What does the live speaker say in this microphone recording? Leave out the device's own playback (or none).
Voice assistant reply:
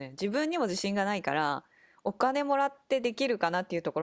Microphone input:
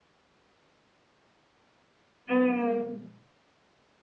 うん。